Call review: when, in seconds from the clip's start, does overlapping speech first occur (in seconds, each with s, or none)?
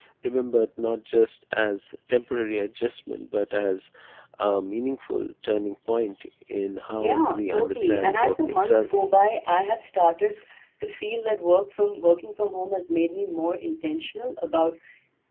7.0 s